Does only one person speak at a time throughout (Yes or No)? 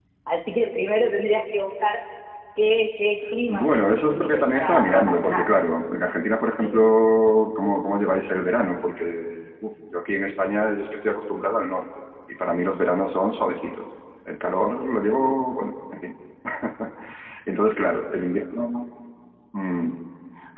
No